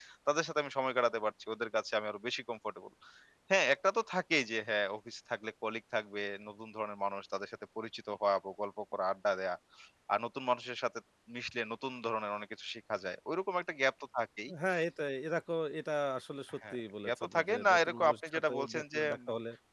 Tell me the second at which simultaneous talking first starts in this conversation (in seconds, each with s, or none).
16.6 s